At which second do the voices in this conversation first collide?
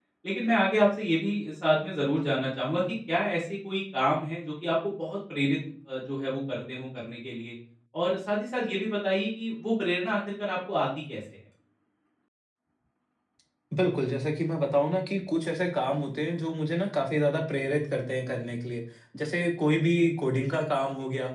none

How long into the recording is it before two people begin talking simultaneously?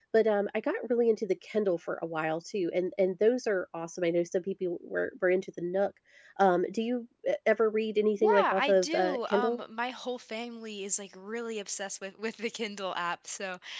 8.2 s

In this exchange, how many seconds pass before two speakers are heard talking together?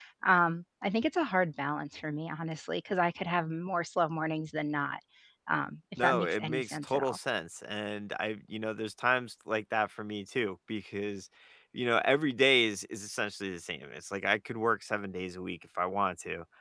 6.0 s

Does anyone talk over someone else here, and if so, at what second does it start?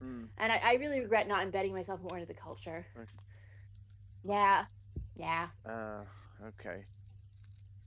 none

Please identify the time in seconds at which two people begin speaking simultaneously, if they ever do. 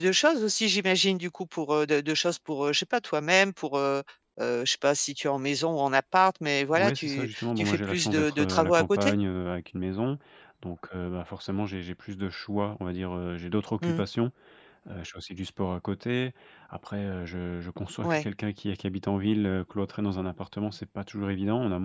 6.7 s

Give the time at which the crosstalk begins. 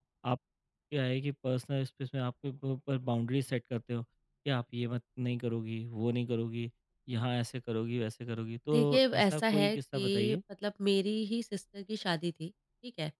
8.7 s

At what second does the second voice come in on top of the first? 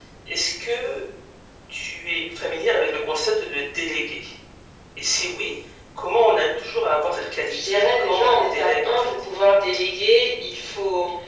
7.5 s

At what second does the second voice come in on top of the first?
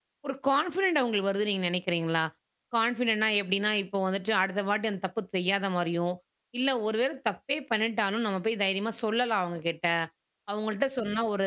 none

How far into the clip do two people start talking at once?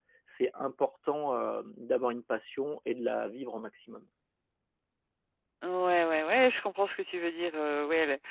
none

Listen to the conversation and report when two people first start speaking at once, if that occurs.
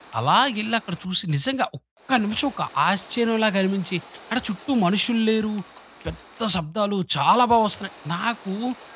none

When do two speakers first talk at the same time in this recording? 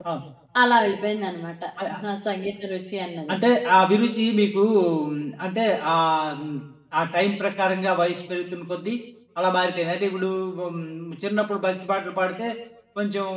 none

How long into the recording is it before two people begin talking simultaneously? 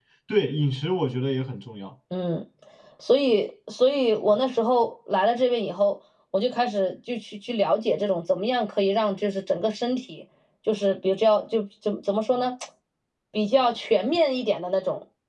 none

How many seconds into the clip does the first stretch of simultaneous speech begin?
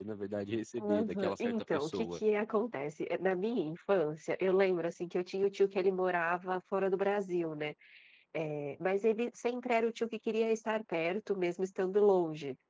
0.8 s

